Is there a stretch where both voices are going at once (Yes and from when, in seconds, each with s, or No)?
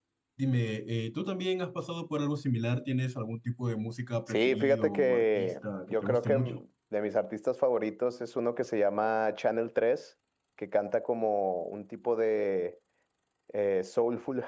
Yes, from 4.3 s